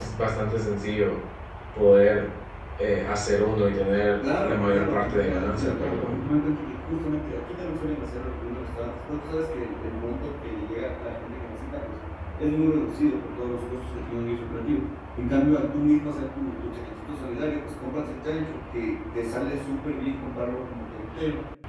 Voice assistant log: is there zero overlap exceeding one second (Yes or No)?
No